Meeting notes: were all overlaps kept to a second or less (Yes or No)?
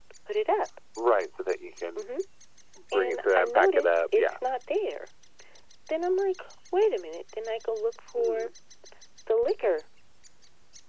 No